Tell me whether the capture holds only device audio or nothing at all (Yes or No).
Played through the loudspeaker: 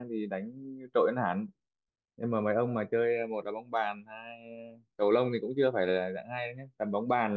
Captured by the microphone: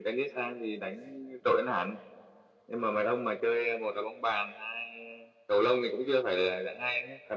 Yes